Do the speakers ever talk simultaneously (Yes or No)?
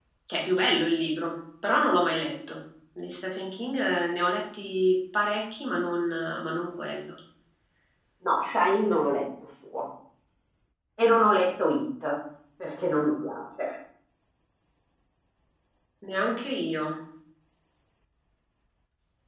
No